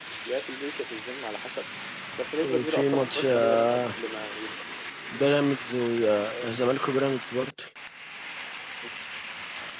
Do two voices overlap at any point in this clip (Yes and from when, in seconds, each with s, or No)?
Yes, from 2.4 s